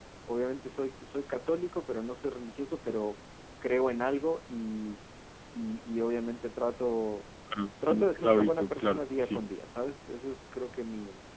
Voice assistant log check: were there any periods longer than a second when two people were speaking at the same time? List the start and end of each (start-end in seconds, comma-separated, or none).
7.8-9.4